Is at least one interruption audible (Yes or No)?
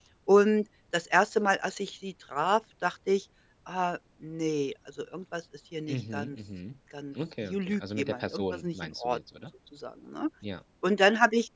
Yes